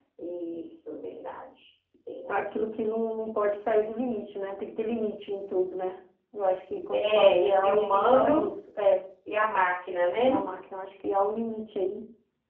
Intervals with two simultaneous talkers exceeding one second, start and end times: 6.9-8.4

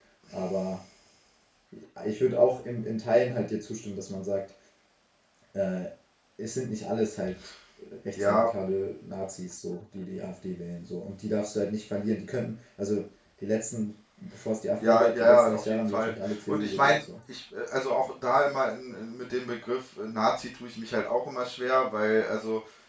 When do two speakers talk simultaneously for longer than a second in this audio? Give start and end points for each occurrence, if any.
14.8-17.0

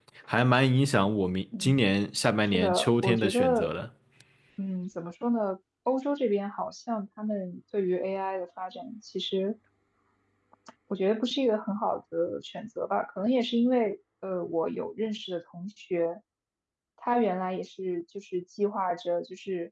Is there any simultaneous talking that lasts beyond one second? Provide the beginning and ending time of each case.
2.5-3.7

